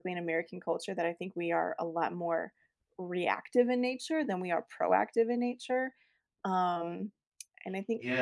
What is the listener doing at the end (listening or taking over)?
taking over